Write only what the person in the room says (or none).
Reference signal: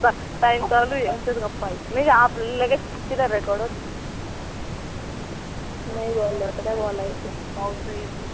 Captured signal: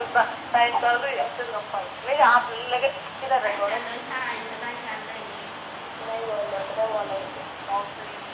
काय चाललय? शाळेचं काय चाललय?